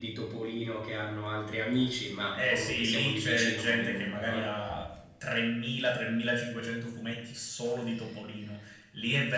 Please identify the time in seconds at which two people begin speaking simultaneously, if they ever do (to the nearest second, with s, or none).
2 s